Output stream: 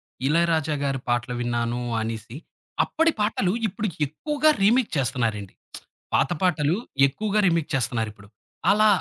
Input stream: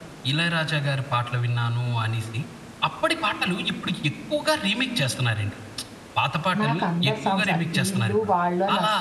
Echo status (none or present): present